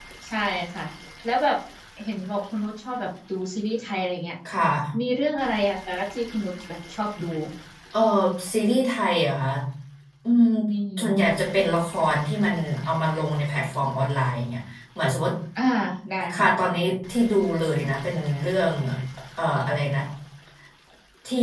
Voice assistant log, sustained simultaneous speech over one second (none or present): none